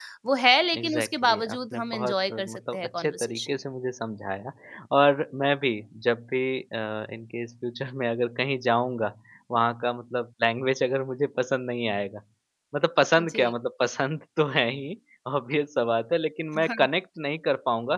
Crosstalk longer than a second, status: present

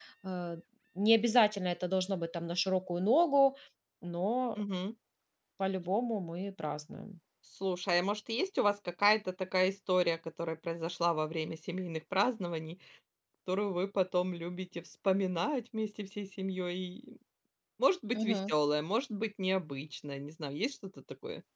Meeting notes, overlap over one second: none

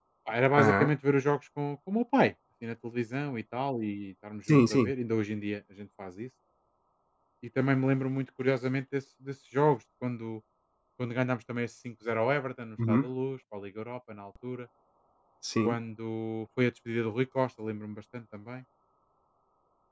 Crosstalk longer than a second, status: none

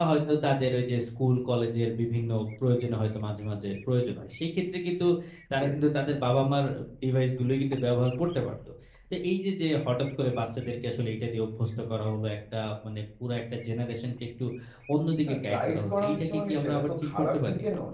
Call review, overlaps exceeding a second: present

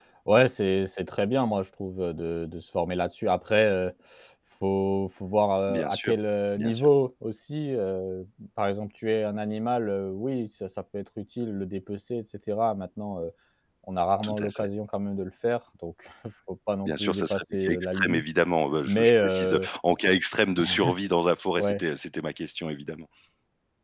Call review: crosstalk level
present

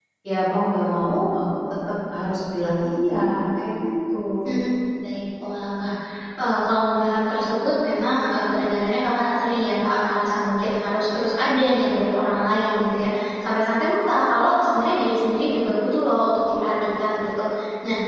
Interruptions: none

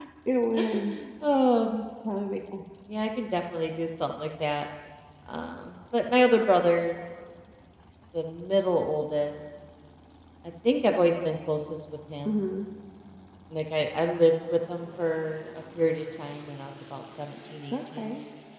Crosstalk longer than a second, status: none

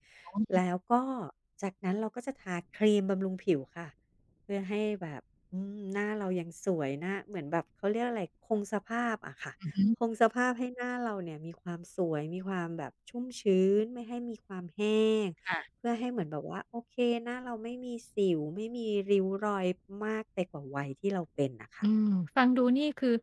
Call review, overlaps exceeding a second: none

